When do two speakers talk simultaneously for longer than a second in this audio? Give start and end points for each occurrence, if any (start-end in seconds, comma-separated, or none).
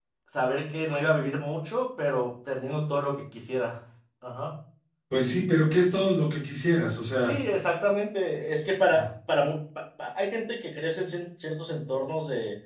none